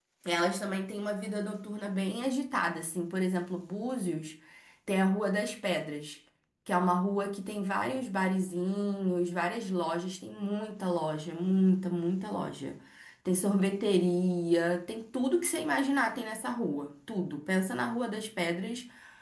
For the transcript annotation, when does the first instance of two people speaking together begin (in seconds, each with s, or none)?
none